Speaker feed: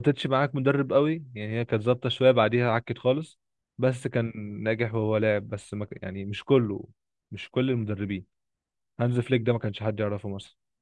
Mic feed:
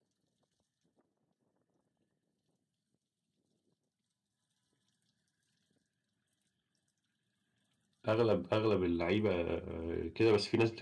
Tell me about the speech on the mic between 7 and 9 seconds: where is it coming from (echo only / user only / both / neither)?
user only